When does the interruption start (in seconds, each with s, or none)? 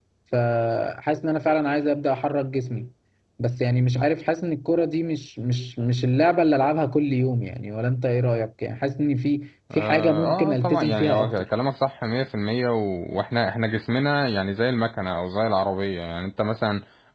9.7 s